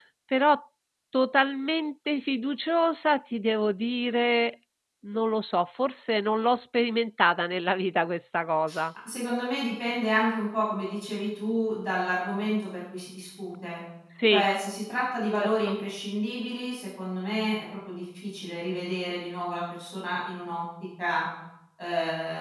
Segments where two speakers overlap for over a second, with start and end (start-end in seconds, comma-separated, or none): none